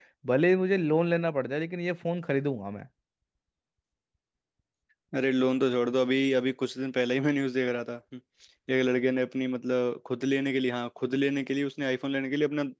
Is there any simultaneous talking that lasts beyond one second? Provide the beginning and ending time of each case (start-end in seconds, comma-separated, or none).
none